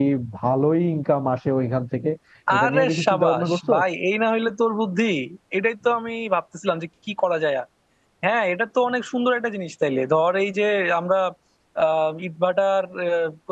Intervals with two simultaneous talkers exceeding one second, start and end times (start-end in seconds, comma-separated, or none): 2.6-3.8